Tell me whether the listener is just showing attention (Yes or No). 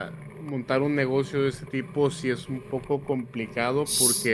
Yes